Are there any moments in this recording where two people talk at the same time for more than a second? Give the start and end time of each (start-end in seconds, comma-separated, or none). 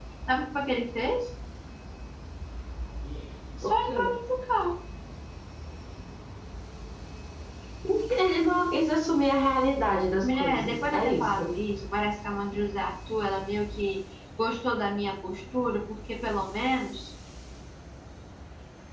10.2-11.5